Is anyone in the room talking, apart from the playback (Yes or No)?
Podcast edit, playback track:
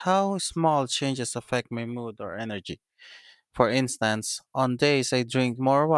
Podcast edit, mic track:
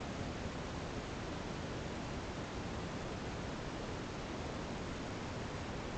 No